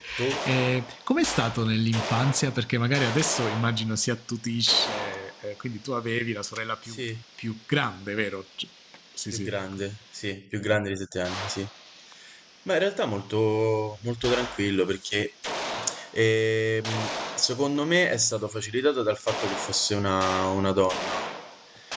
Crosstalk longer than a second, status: none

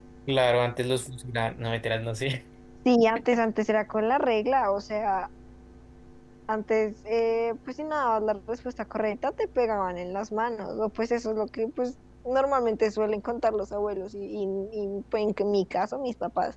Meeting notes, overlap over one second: none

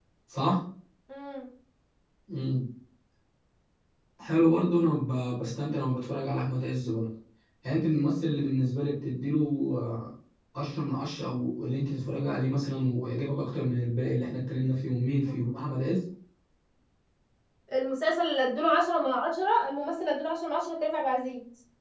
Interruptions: none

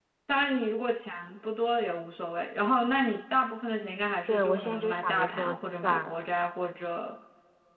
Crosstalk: present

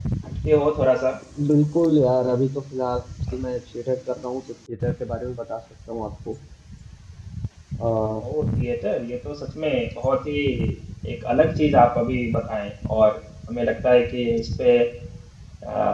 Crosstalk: none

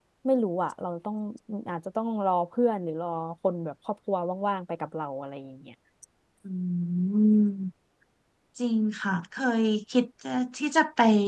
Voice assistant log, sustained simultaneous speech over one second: none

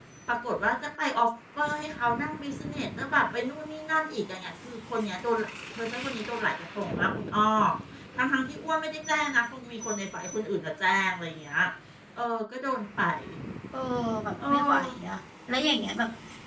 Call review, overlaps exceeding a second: none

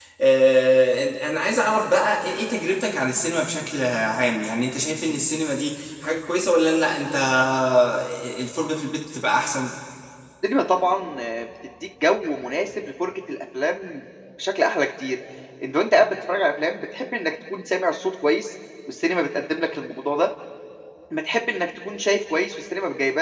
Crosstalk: none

